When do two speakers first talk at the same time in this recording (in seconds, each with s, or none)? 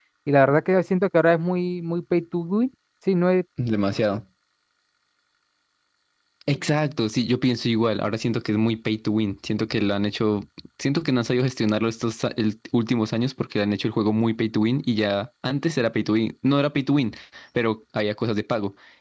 none